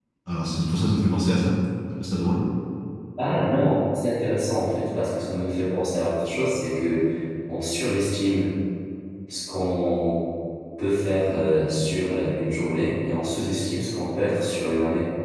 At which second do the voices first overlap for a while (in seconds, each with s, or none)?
none